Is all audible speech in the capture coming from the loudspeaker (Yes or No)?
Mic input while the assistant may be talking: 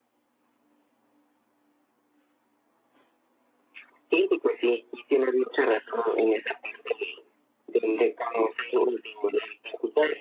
Yes